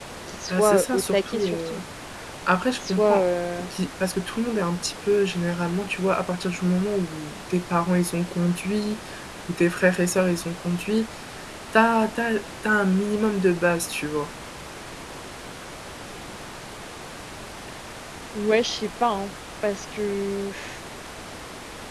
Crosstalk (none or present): present